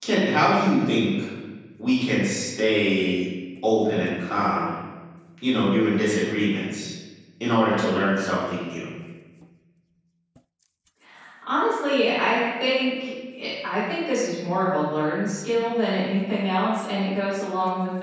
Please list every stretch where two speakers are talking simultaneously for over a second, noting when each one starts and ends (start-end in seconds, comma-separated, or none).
none